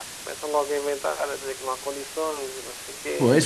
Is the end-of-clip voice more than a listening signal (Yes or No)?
Yes